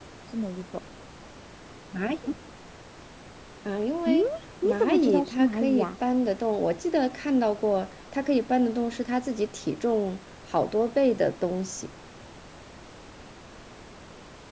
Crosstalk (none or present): present